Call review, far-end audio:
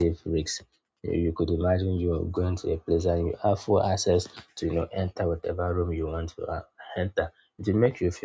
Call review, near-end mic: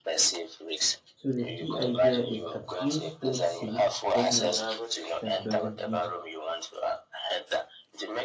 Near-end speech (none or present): present